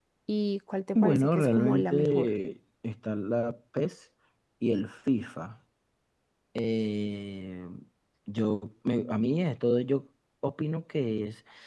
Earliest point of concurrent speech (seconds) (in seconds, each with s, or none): 1.0 s